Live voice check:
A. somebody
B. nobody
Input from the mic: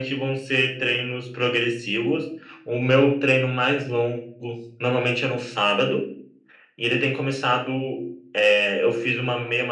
B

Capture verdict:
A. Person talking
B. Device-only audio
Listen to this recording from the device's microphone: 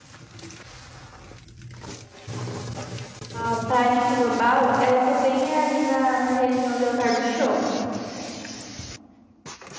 A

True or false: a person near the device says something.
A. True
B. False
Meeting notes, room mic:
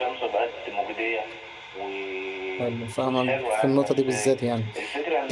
A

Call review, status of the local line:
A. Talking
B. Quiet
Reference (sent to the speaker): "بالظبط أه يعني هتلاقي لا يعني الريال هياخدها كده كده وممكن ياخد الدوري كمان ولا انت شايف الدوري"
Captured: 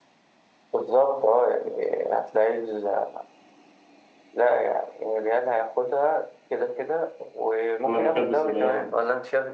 A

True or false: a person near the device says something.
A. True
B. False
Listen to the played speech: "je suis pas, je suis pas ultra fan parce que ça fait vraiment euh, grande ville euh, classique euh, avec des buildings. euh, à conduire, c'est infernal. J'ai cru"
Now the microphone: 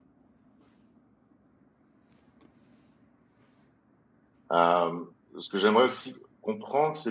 A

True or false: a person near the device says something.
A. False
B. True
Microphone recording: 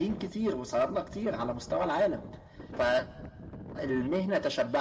A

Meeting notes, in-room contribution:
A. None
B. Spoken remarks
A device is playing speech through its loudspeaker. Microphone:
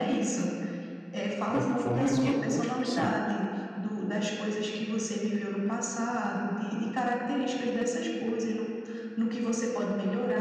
B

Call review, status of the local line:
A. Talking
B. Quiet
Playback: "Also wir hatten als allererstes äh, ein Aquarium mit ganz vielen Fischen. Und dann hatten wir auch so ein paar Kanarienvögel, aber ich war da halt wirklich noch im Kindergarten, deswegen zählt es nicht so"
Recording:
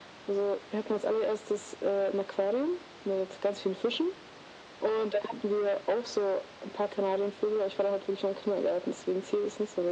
B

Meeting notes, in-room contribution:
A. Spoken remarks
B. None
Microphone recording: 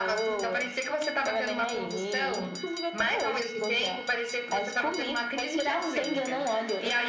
B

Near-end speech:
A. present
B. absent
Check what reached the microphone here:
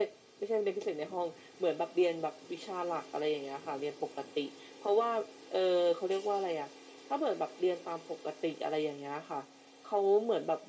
B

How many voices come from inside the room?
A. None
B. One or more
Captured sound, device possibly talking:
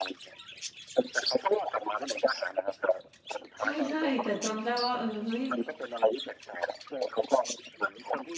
B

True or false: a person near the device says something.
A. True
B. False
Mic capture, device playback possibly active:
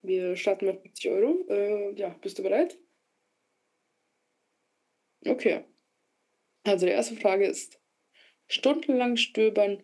B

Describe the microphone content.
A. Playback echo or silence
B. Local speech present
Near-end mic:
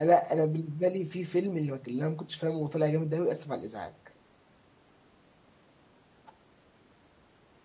B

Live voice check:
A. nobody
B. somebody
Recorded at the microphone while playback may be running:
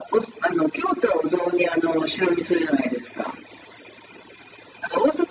A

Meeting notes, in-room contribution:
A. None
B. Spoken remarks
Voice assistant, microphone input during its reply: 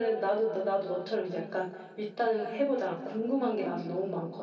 A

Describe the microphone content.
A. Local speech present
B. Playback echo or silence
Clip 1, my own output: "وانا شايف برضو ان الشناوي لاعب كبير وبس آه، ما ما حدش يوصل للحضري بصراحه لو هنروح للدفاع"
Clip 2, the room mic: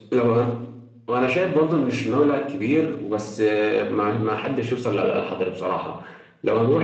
B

